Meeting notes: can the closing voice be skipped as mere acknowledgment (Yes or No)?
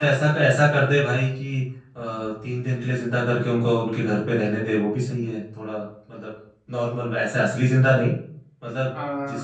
Yes